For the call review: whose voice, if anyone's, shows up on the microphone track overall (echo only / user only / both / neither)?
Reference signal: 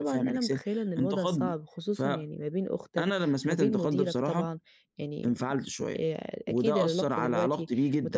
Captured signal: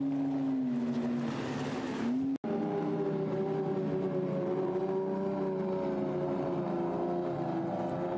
neither